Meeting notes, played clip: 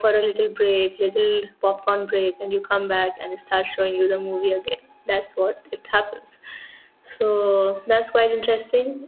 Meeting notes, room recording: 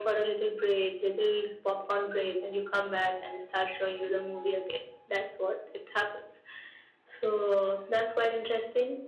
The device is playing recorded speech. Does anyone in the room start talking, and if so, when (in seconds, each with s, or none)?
none